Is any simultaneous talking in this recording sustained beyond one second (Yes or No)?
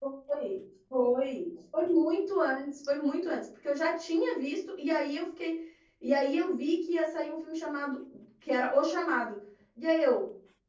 No